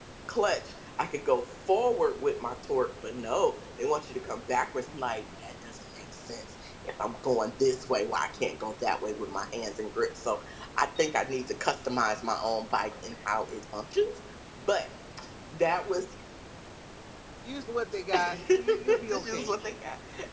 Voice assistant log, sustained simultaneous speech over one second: present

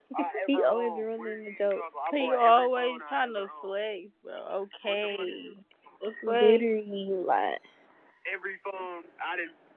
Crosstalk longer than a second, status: present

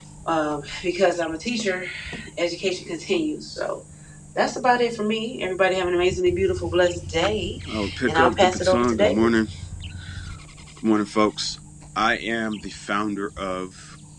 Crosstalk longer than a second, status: present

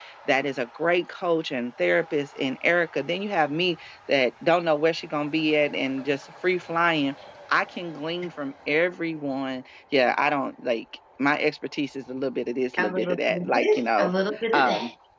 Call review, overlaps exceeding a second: present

